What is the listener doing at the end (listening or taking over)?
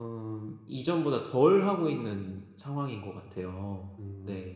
taking over